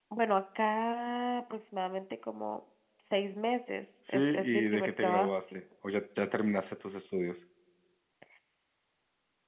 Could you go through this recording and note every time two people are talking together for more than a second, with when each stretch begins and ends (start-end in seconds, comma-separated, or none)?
4.1-5.4